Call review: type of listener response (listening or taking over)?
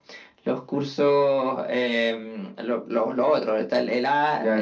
taking over